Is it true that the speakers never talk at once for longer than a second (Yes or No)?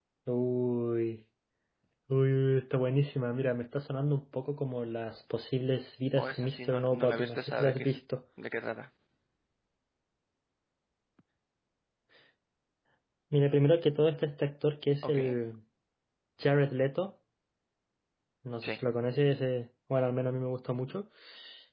No